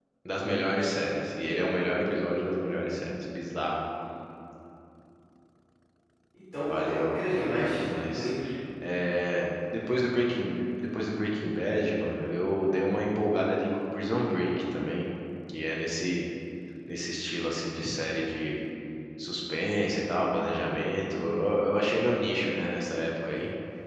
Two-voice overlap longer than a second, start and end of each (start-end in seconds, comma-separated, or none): 6.7-8.3